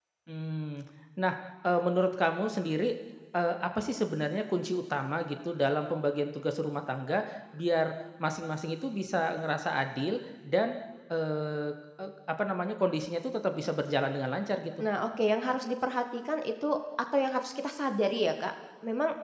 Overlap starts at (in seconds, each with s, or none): none